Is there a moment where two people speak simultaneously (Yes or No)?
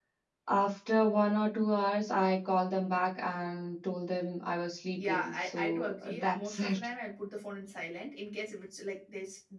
Yes